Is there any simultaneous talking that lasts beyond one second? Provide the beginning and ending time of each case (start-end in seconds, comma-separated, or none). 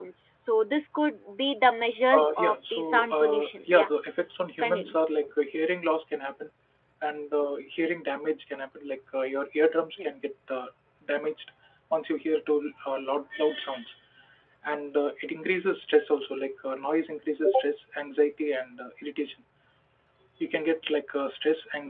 2.1-3.9